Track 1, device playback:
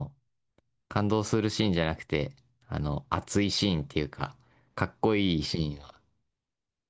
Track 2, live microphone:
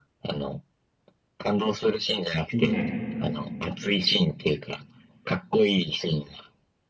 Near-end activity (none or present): present